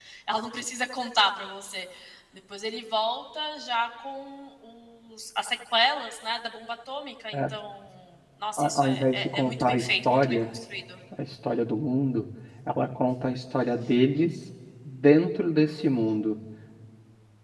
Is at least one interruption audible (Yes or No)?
Yes